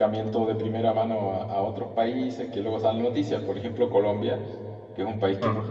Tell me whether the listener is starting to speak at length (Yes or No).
No